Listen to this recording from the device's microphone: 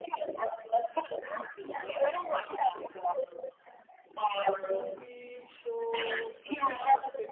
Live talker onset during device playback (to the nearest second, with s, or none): 4 s